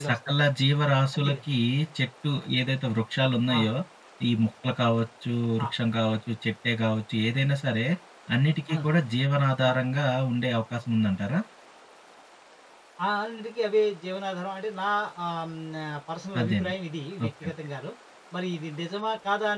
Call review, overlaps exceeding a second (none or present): none